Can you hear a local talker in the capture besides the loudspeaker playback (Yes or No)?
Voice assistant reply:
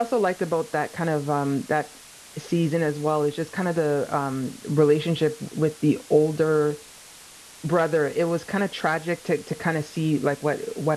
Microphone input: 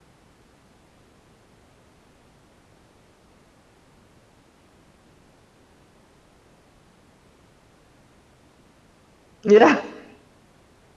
Yes